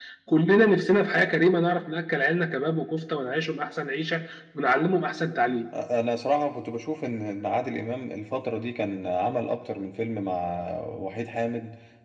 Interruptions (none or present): none